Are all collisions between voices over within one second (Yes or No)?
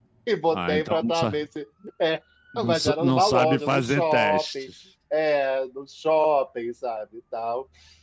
No